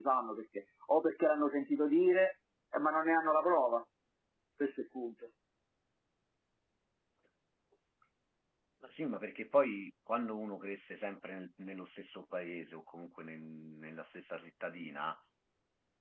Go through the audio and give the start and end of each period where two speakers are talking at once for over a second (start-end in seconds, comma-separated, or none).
none